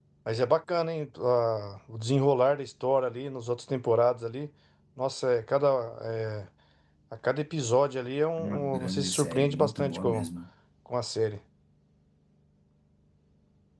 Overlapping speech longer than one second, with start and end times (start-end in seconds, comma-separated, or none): 8.4-10.3